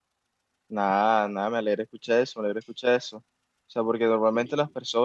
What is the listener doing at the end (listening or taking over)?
listening